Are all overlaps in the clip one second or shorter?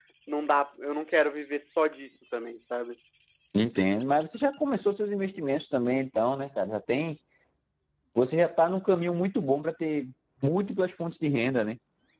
Yes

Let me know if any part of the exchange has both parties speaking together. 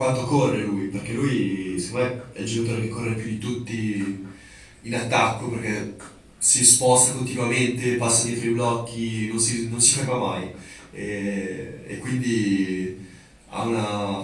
No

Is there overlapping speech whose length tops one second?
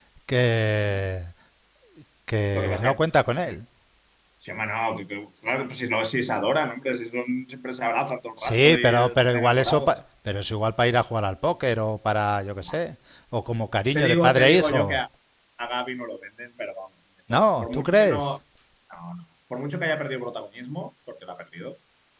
Yes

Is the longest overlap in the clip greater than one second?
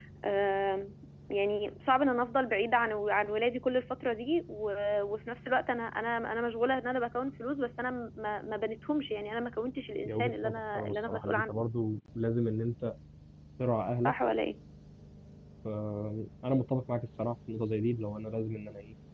Yes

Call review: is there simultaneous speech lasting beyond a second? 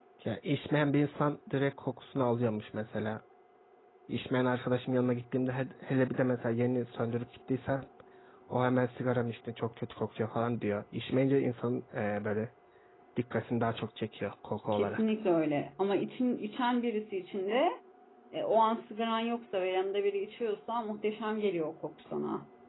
No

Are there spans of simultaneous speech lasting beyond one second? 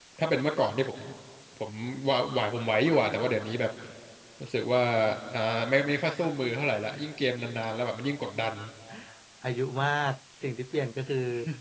No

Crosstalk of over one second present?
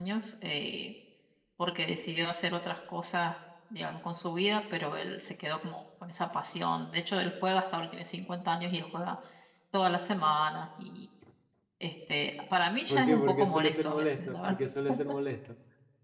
Yes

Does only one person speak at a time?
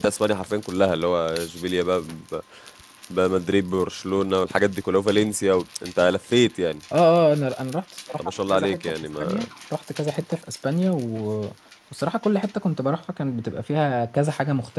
No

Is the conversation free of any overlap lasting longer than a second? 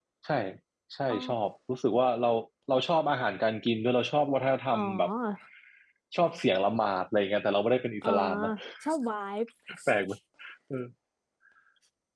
Yes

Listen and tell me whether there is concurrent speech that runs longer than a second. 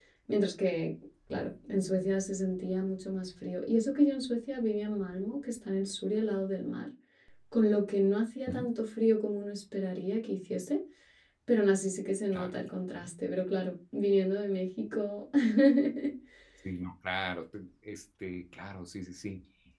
No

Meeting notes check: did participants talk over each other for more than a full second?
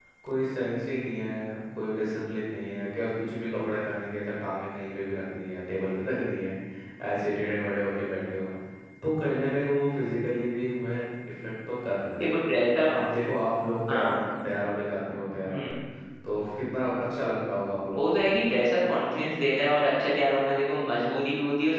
No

